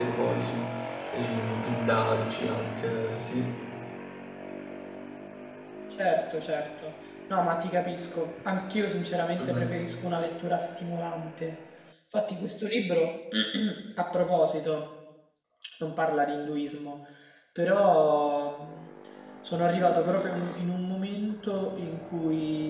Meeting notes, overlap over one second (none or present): none